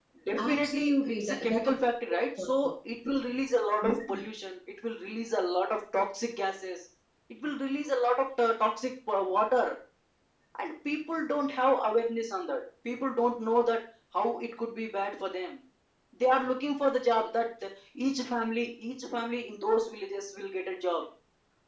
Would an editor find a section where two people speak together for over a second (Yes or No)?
Yes